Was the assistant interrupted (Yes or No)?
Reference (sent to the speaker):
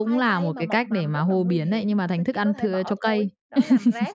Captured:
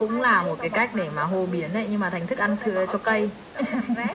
No